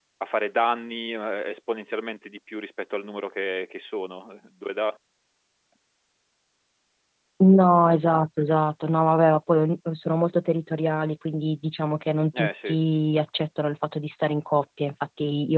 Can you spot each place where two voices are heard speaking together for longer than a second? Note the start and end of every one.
none

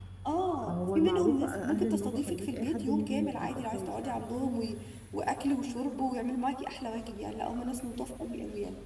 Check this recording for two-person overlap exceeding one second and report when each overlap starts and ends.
0.7-4.3

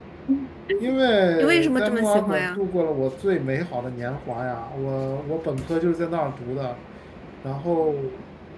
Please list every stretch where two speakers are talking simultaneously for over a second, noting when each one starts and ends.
1.4-2.6

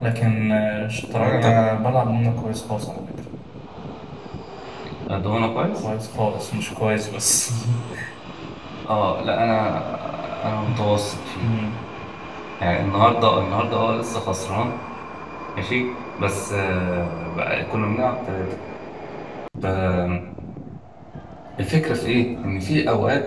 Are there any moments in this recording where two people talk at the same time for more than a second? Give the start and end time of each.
none

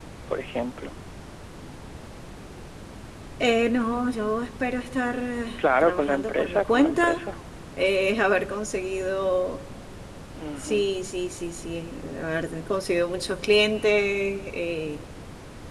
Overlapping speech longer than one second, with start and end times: 5.6-7.2

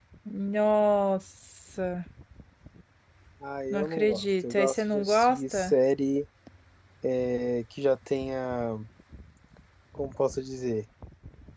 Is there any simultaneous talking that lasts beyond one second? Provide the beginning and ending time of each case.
3.7-5.7

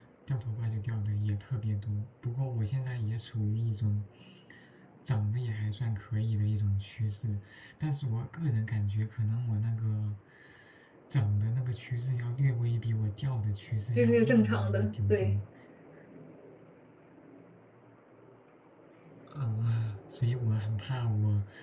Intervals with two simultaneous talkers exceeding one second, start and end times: 13.9-15.3

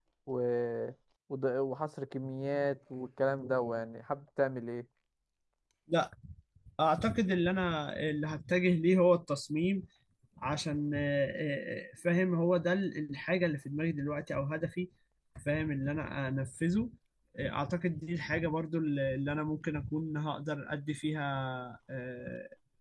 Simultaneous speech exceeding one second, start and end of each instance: none

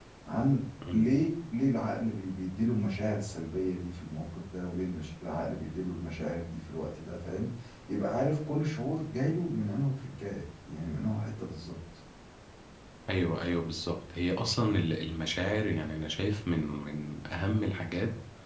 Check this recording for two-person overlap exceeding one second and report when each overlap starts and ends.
none

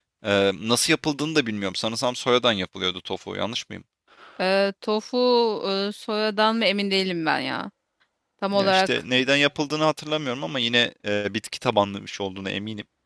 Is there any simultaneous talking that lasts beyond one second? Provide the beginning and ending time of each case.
none

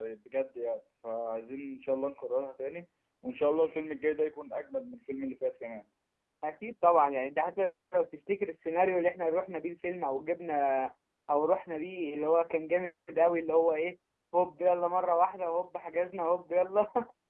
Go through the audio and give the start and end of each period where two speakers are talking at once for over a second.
none

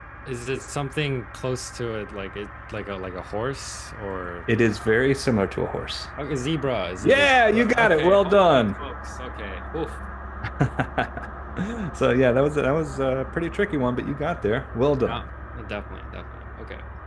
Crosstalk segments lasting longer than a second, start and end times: 7.0-8.6

